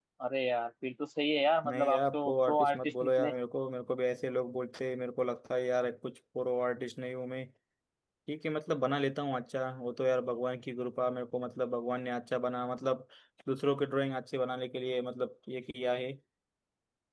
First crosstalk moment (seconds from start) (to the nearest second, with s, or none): 2 s